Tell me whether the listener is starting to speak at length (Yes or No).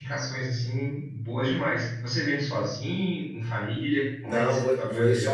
Yes